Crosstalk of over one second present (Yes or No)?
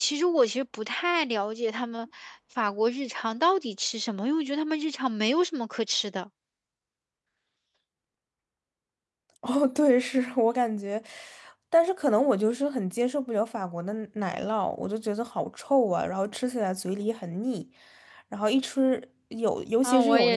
No